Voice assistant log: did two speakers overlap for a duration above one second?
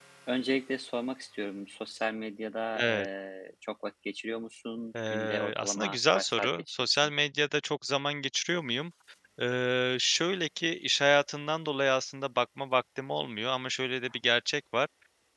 Yes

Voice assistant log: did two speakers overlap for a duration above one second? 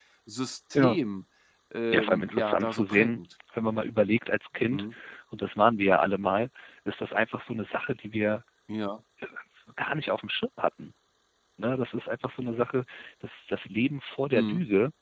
Yes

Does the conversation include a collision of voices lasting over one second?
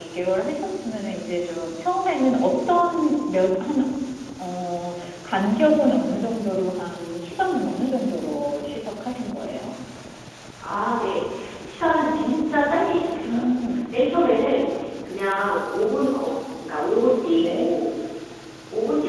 No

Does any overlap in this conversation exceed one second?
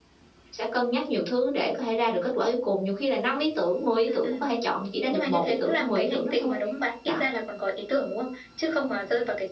Yes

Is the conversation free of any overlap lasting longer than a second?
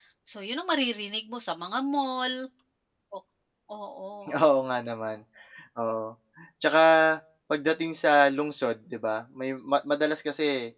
Yes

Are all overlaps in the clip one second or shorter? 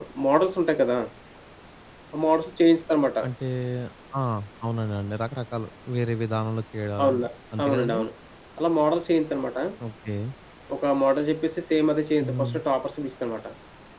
Yes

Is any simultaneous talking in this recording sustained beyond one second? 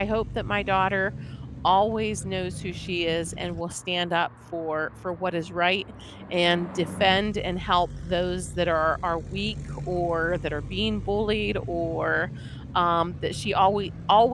No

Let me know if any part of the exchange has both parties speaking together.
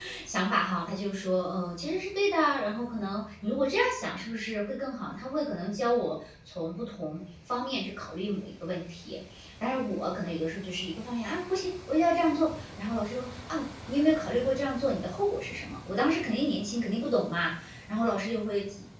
No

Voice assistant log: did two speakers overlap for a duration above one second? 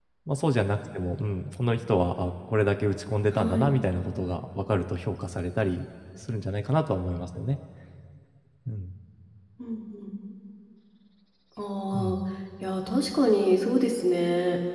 No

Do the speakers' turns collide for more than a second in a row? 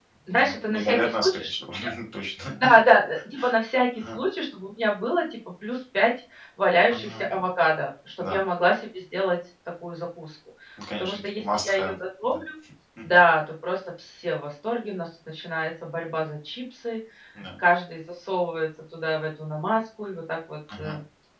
Yes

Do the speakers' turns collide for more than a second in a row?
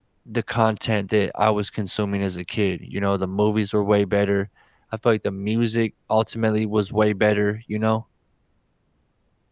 No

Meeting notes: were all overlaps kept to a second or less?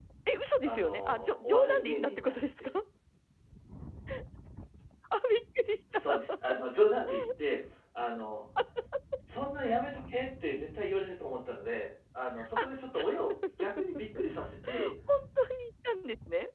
No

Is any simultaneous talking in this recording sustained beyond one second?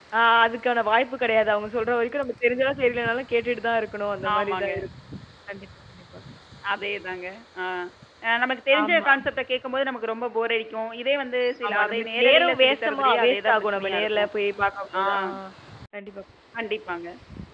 Yes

